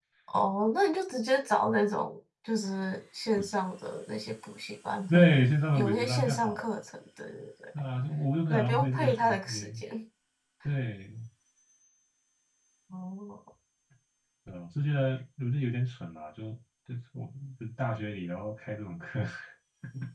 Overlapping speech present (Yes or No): Yes